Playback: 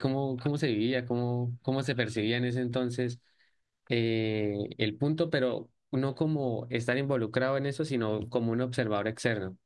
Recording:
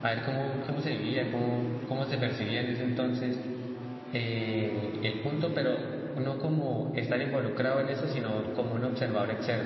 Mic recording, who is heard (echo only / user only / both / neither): echo only